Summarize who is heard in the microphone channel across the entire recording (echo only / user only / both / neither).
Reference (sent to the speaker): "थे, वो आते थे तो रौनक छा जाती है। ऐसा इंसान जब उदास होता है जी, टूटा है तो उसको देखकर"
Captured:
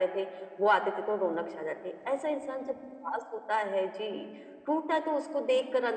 echo only